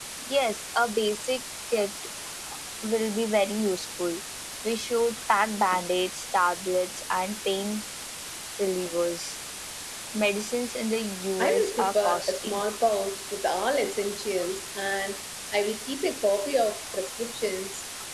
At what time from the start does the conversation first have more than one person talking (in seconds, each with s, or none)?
11.4 s